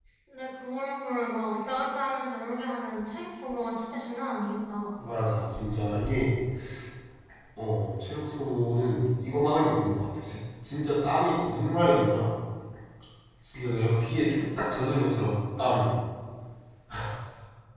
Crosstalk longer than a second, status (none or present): none